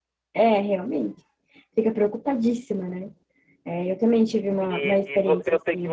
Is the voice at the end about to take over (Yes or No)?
Yes